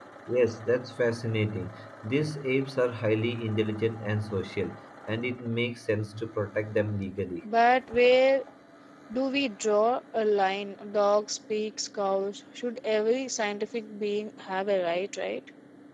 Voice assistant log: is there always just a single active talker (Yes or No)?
Yes